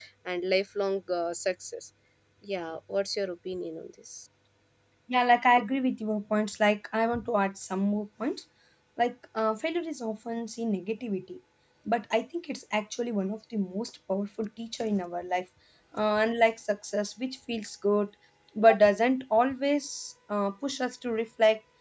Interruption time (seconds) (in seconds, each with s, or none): none